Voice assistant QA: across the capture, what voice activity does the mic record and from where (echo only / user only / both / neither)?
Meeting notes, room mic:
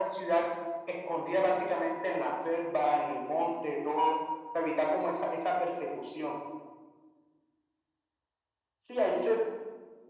echo only